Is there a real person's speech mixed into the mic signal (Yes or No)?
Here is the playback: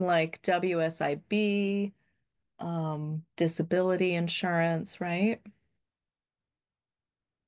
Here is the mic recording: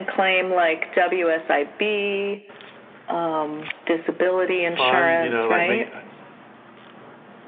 Yes